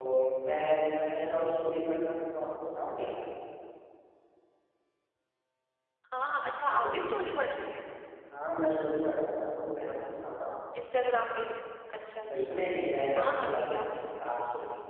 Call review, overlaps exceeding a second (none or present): present